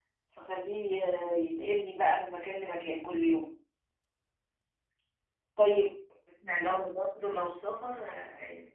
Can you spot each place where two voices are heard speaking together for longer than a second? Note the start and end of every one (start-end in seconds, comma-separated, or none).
none